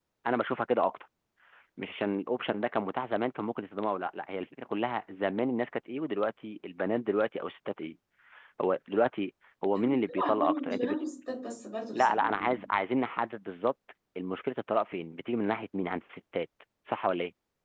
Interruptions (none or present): present